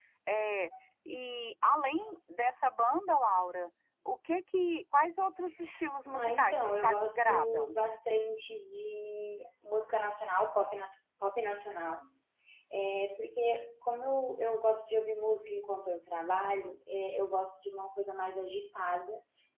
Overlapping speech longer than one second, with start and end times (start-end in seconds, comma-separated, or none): 6.2-7.8